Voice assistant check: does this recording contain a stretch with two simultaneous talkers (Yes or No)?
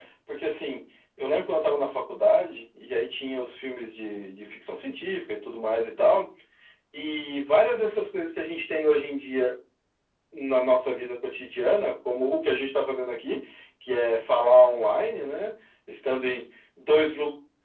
No